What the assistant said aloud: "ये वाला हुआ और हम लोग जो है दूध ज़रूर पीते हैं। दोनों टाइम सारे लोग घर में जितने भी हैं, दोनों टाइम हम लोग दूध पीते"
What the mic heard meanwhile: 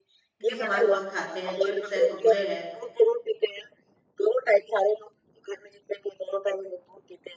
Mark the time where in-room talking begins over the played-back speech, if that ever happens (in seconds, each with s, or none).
0.5 s